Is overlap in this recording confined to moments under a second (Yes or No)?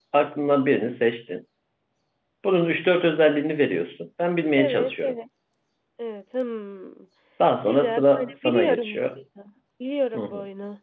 No